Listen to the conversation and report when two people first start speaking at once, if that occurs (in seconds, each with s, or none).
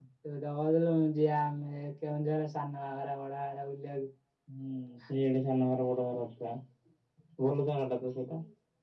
none